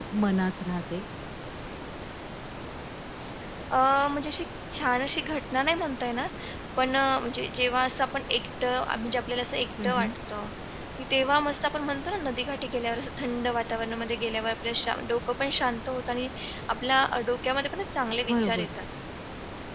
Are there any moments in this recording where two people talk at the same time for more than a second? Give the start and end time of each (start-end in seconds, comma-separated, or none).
none